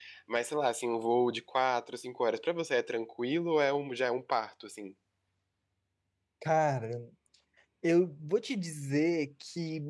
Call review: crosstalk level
none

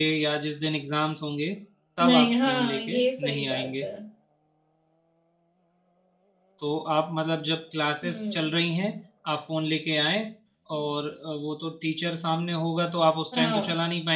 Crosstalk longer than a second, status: present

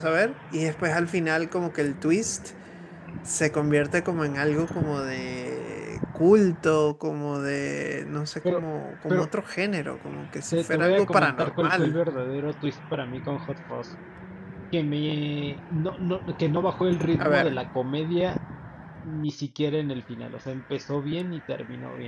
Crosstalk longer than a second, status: present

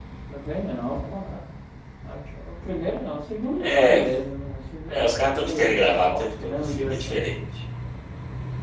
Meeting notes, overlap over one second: present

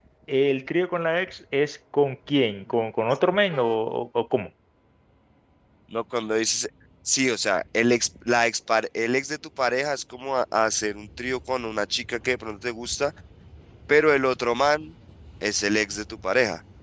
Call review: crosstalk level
none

